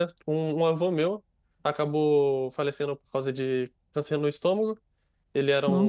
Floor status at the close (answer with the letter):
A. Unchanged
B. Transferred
A